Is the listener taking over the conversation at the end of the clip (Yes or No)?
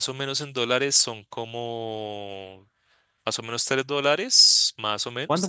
No